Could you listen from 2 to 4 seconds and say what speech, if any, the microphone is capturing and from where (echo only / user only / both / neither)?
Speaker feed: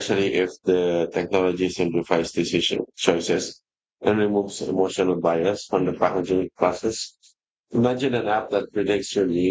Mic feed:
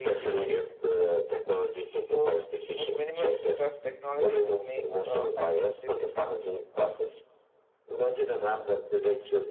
both